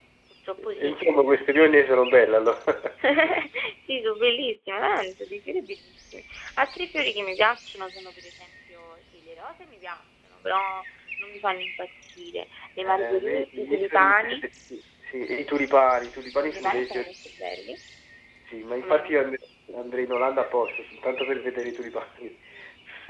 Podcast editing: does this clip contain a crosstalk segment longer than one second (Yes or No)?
Yes